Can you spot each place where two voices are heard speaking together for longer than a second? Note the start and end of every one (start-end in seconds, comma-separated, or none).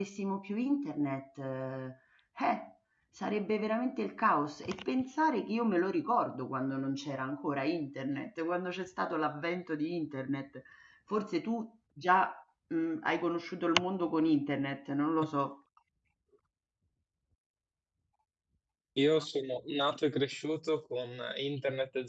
none